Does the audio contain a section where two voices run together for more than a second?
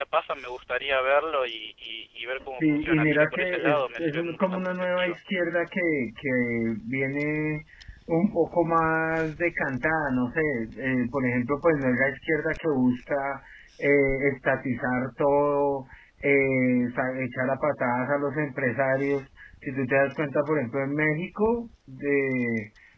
Yes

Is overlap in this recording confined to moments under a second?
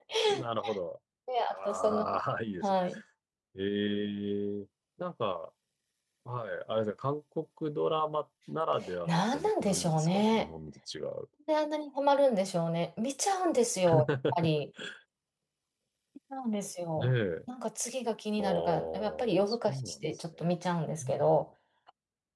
No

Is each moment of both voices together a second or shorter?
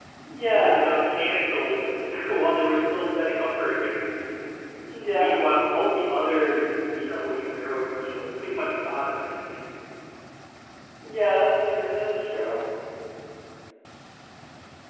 Yes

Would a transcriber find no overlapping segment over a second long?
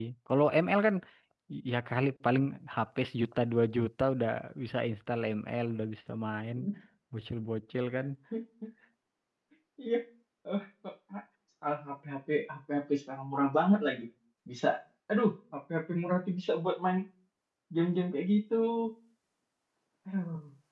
Yes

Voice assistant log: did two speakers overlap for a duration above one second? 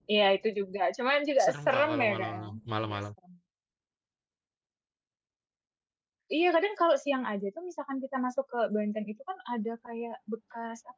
Yes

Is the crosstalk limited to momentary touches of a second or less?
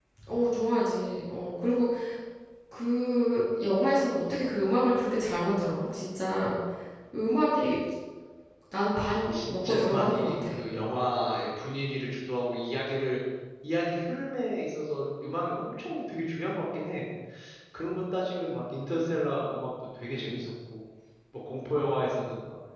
No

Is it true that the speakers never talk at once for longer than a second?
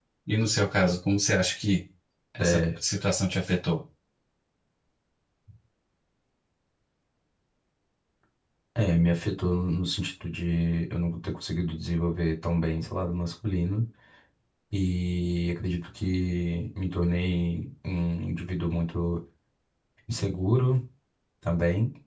Yes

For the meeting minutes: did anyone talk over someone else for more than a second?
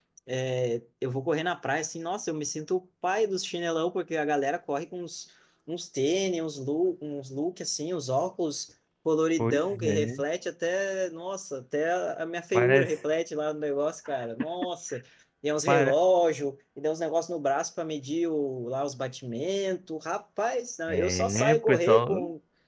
Yes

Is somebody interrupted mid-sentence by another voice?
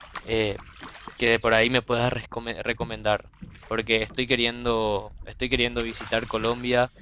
No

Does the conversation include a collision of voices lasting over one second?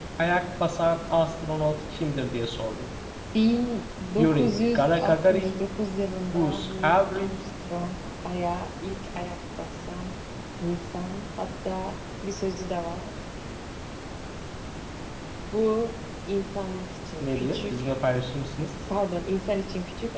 Yes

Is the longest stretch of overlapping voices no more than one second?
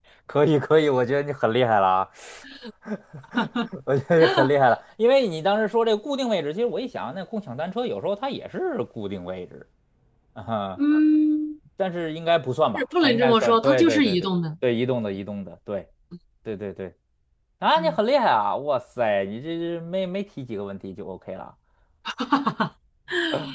No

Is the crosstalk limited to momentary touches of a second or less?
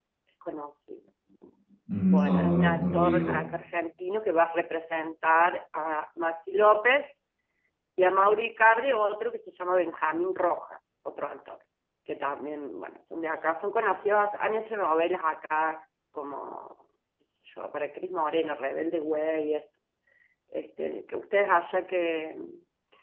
No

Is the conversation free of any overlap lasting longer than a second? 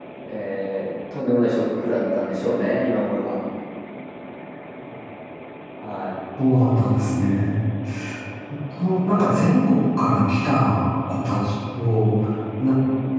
Yes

